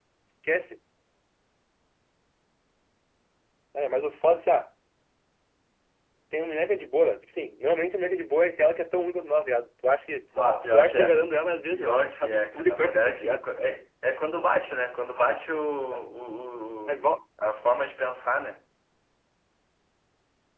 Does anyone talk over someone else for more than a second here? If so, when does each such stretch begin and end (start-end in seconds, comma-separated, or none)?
11.6-13.4